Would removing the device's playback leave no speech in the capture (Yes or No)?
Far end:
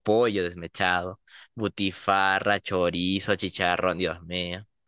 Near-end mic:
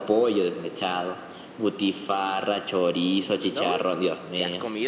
No